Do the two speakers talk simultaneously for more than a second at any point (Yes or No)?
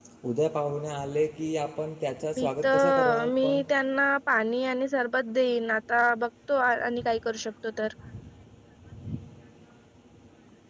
Yes